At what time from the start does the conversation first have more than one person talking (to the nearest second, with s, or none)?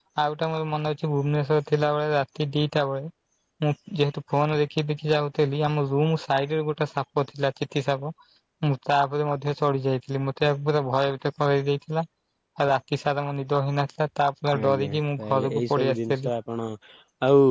15 s